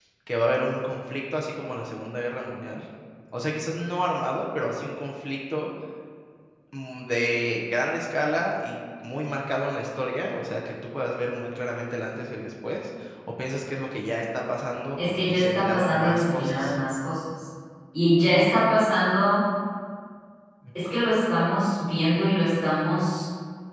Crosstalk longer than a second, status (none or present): present